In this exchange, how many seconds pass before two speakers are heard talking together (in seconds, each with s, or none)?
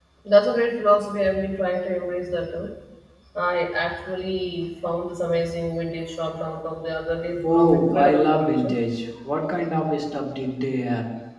7.4 s